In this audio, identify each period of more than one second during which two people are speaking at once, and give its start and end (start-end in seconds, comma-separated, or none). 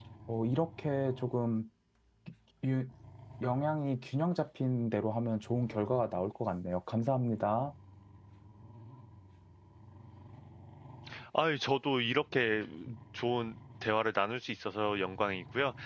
none